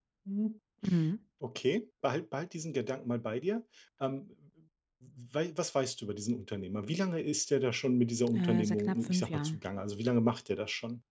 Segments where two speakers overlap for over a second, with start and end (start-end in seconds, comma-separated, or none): 8.3-9.6